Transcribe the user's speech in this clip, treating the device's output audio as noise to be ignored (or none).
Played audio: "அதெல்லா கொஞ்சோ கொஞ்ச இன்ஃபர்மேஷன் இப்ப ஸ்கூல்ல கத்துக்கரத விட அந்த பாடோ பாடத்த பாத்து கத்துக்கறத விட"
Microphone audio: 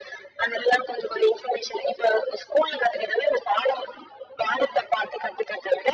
none